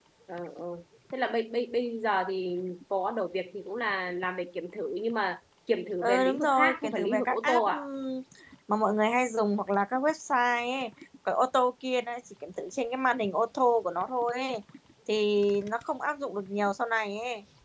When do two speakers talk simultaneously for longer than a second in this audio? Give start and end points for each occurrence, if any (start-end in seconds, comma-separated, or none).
6.0-7.9